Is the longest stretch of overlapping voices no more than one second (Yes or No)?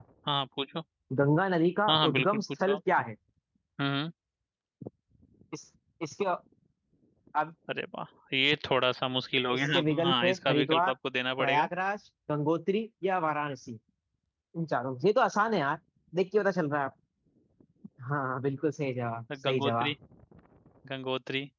No